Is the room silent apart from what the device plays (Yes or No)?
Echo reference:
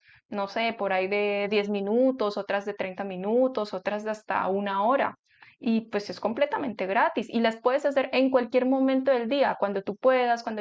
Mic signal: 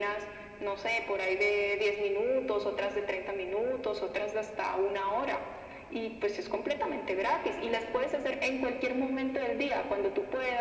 Yes